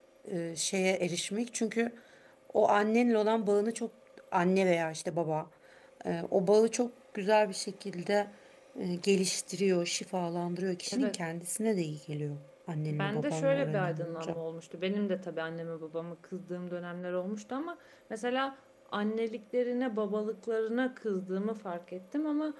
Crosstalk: present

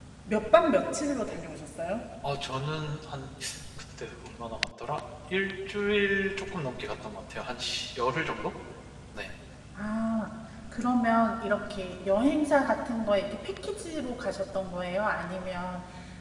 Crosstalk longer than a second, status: none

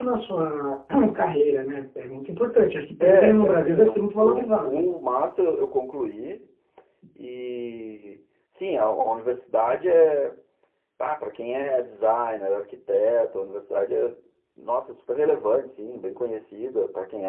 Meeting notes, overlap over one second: present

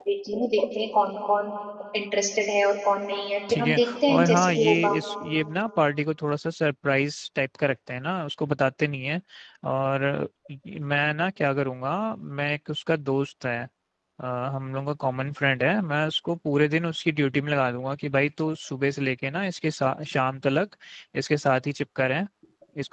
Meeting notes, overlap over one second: present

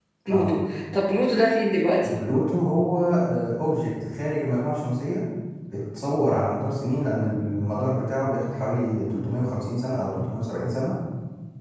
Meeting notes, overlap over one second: none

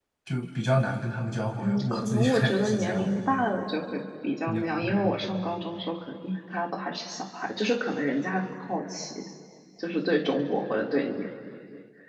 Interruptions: present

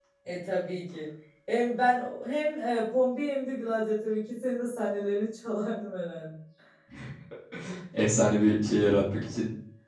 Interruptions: none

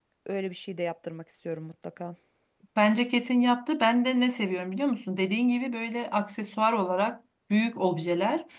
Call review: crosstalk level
none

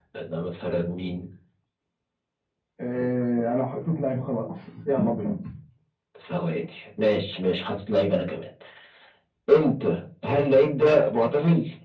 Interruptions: none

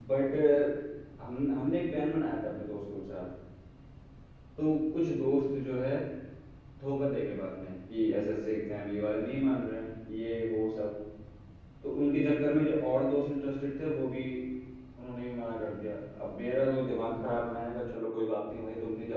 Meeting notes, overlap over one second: none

